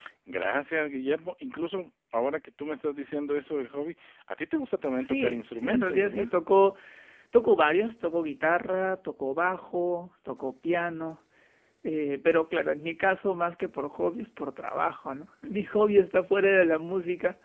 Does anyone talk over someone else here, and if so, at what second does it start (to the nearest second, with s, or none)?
5 s